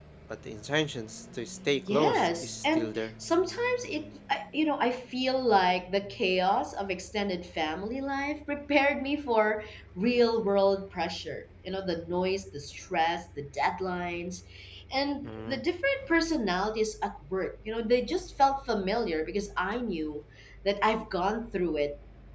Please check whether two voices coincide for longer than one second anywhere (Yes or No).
Yes